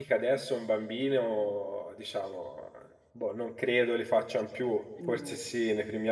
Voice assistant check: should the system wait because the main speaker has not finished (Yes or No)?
Yes